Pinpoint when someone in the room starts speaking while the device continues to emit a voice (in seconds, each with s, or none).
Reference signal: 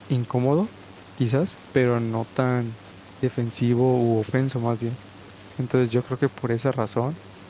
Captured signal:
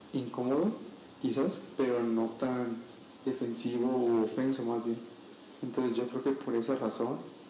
none